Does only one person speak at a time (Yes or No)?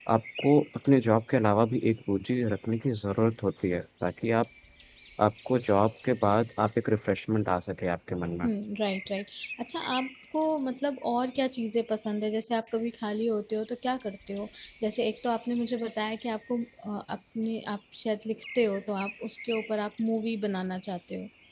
Yes